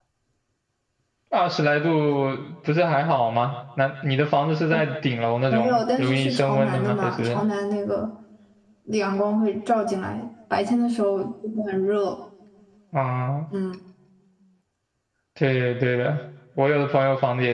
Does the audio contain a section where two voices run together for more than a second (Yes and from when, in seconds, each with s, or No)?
Yes, from 5.5 s